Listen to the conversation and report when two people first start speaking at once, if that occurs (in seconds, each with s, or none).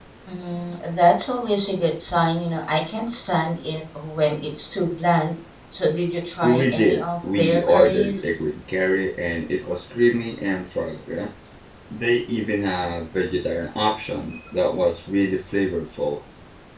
6.4 s